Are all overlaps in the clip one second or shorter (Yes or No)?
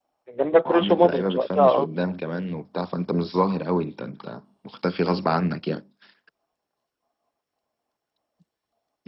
No